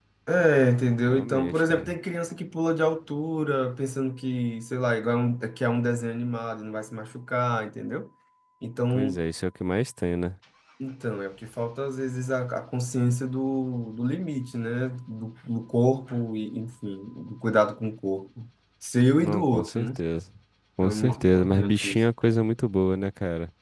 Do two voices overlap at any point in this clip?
Yes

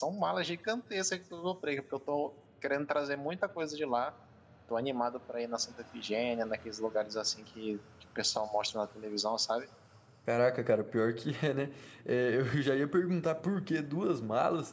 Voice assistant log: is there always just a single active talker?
Yes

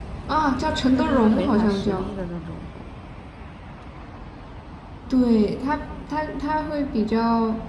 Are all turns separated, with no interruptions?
No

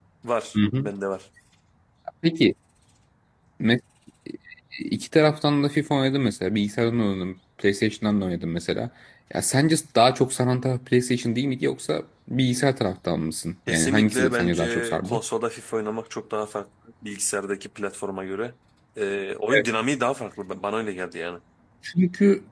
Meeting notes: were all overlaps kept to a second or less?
No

